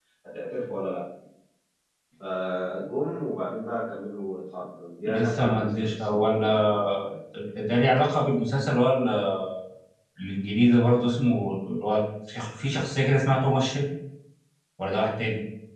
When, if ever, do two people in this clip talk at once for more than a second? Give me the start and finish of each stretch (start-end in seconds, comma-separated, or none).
5.0-7.0